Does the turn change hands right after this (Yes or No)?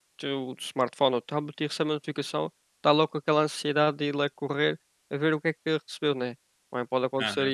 No